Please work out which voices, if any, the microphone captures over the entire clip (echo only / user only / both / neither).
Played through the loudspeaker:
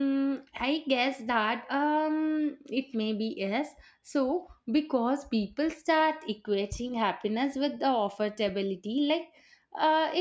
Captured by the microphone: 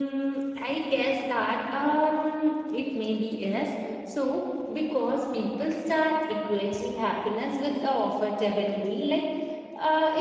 echo only